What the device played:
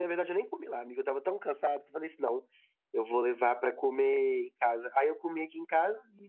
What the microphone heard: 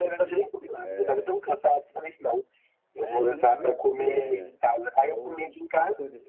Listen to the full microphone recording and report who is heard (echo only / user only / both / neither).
both